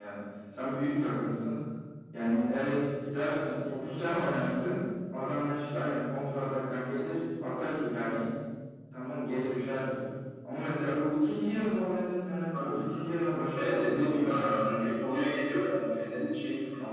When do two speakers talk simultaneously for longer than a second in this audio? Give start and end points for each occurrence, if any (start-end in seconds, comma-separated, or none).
13.5-14.9